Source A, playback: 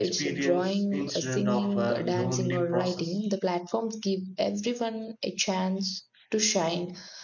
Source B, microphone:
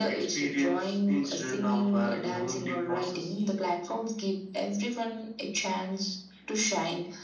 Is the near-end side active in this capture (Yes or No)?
No